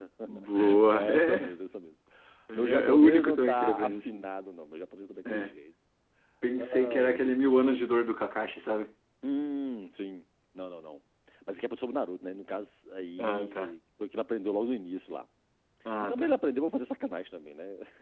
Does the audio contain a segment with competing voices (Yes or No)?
Yes